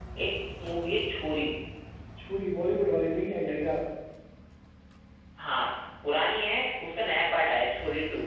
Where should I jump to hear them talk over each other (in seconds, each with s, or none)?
none